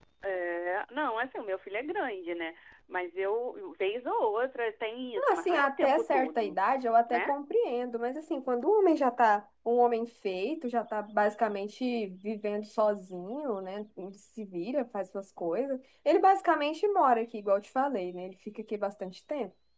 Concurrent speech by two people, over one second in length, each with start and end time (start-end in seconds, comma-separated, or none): 5.3-6.6